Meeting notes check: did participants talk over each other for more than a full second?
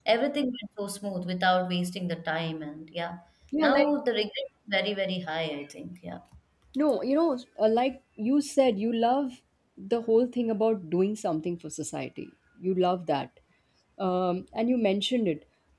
No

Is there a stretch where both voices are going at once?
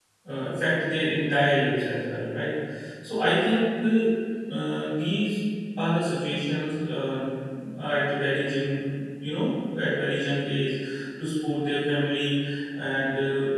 No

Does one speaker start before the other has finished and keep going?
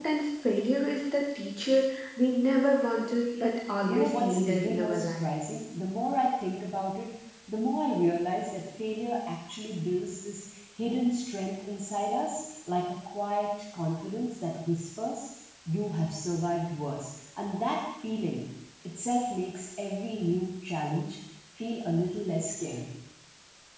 Yes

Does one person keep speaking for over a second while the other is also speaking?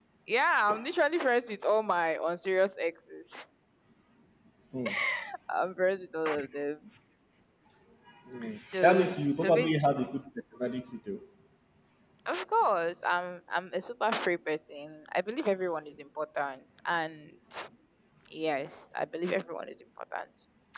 No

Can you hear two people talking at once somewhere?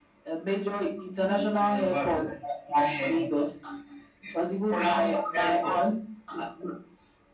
Yes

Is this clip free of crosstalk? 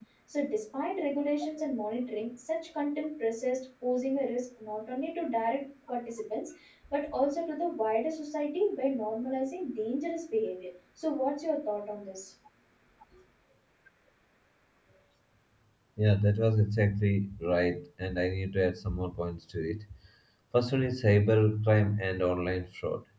Yes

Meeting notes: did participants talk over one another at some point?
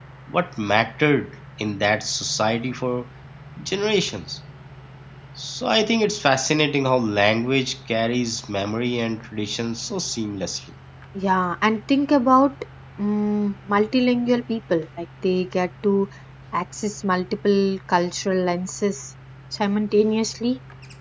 No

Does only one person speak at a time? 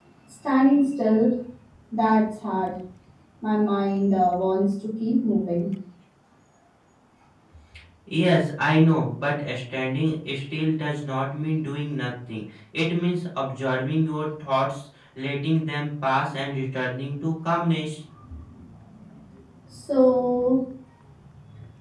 Yes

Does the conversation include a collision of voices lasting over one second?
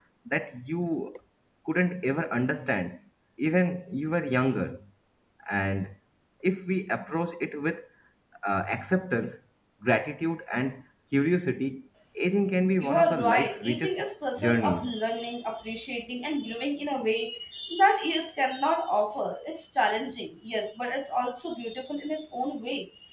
Yes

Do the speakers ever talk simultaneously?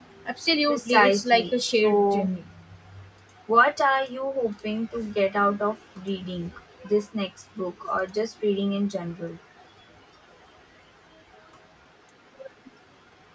Yes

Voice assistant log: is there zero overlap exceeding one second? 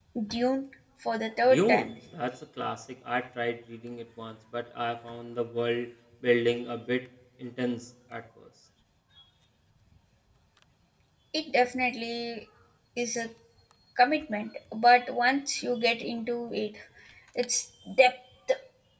Yes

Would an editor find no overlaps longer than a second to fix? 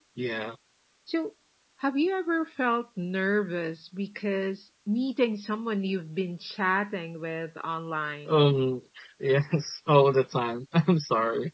Yes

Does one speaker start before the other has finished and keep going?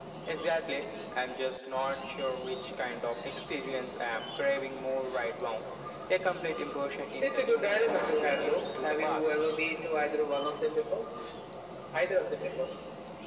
Yes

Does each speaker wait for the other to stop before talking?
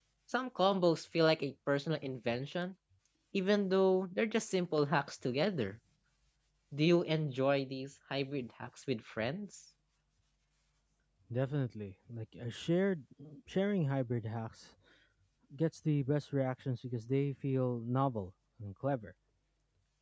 Yes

